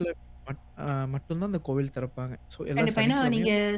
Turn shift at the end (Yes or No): Yes